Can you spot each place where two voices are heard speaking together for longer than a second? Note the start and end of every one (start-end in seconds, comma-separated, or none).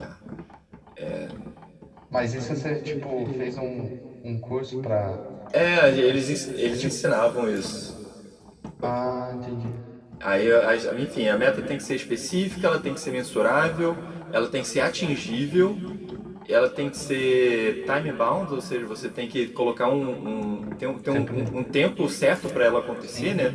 none